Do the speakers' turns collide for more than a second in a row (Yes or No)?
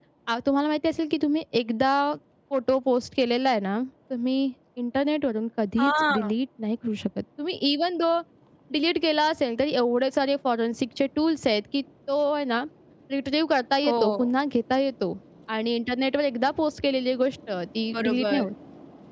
No